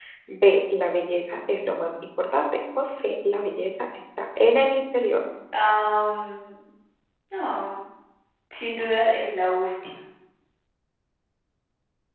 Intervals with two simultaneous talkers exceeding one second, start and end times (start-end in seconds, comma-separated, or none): none